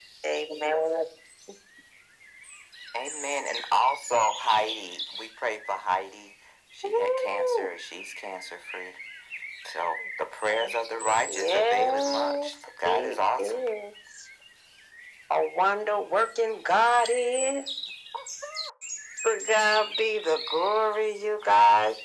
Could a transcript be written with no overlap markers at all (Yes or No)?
No